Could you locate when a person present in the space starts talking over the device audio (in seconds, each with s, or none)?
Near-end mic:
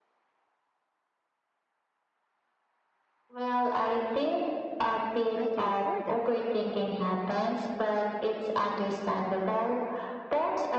5.3 s